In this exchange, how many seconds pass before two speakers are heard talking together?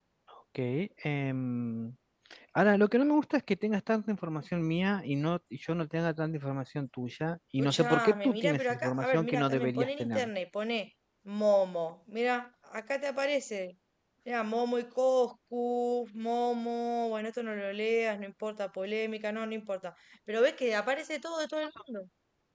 7.6 s

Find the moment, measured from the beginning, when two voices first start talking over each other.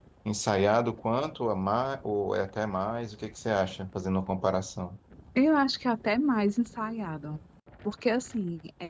none

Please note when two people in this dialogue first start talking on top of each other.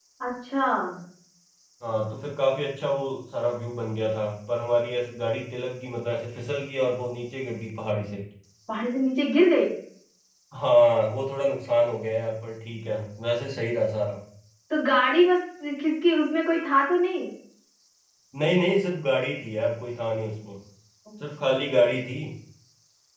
none

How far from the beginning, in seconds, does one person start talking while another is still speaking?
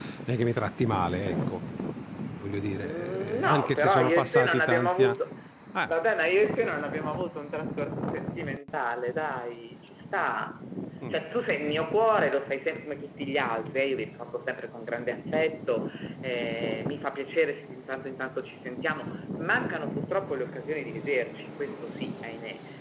2.8 s

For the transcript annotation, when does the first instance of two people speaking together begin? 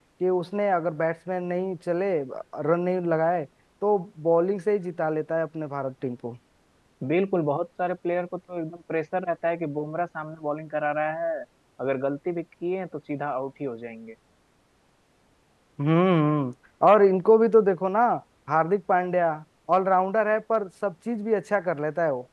none

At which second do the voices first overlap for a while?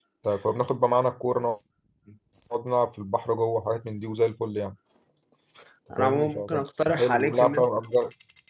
6.0 s

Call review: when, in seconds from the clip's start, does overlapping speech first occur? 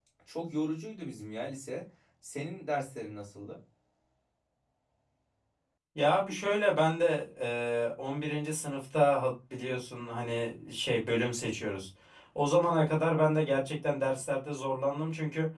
none

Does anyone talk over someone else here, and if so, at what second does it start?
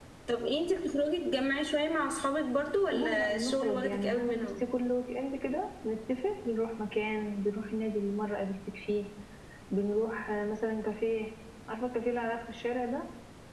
2.9 s

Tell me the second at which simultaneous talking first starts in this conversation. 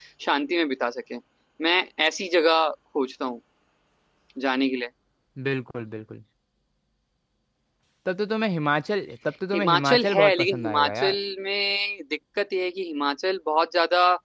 9.5 s

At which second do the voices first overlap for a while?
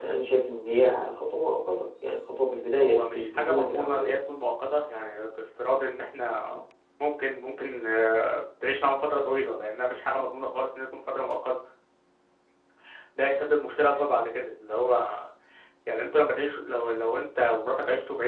2.8 s

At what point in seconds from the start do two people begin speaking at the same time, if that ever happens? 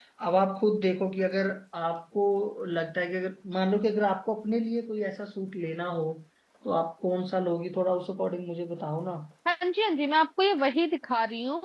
none

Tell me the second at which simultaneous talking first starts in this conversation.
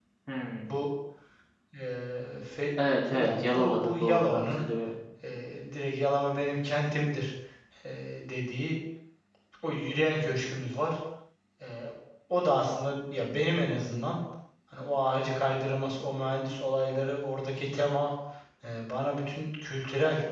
3.1 s

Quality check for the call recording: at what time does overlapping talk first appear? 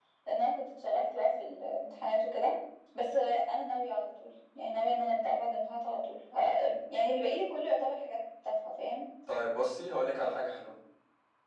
none

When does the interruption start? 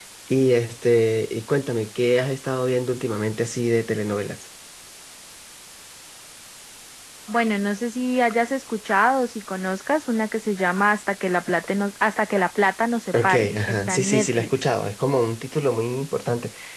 13.1 s

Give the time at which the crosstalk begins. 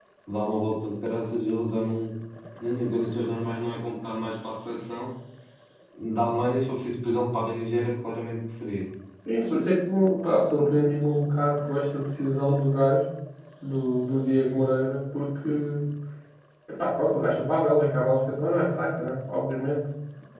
none

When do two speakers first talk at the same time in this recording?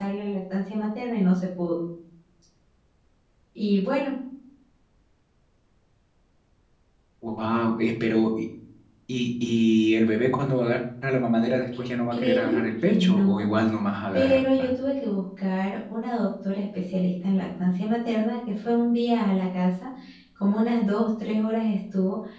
12.1 s

